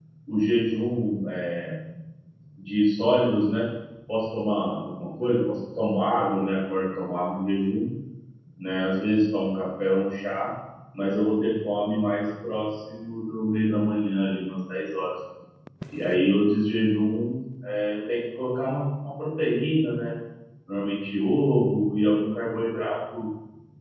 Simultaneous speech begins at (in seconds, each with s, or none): none